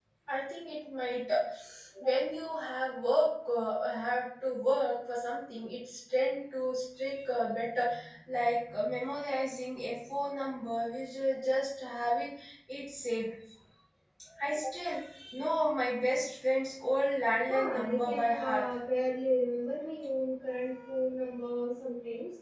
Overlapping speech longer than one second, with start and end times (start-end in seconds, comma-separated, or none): 17.5-18.7